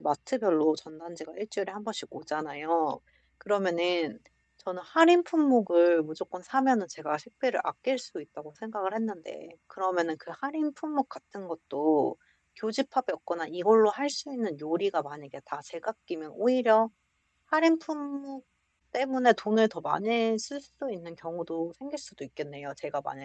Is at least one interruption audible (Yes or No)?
No